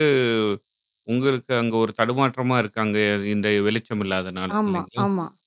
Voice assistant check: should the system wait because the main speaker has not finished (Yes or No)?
No